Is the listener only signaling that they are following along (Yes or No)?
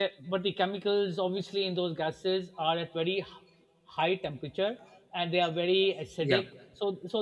Yes